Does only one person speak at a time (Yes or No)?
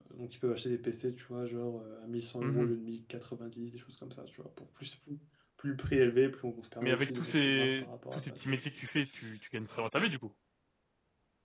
No